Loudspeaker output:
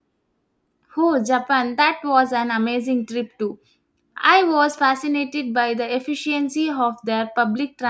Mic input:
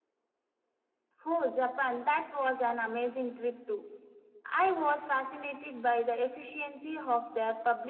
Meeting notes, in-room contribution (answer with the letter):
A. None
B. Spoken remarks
A